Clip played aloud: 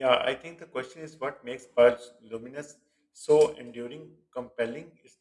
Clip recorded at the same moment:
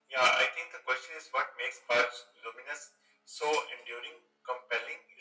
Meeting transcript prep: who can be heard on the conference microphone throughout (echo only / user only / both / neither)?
echo only